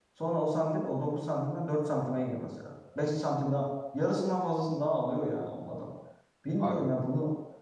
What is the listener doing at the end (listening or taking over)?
listening